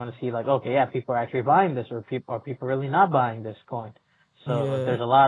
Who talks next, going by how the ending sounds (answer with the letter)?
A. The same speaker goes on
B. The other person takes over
A